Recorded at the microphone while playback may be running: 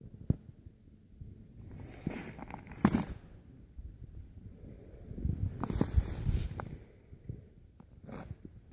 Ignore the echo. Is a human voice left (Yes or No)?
No